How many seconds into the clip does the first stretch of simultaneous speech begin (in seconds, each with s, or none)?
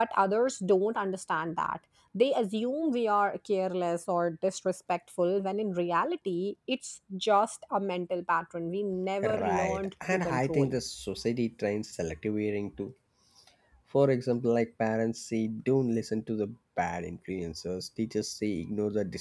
9.2 s